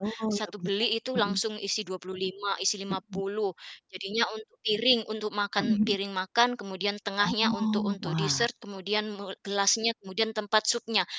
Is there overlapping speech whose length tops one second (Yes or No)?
Yes